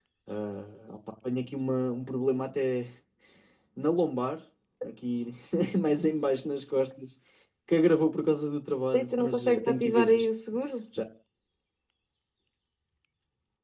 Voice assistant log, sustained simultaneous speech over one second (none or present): present